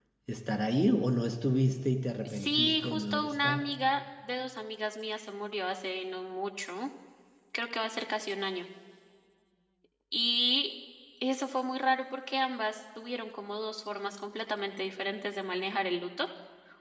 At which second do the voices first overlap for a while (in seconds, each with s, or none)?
2.2 s